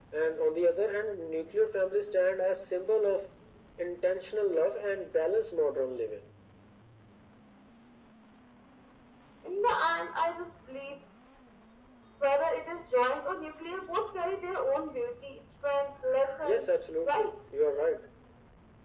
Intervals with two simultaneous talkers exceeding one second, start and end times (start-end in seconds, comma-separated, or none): none